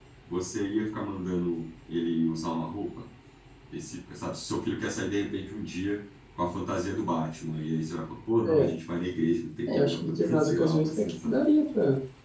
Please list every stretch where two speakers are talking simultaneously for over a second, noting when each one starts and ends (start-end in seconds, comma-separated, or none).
9.7-11.4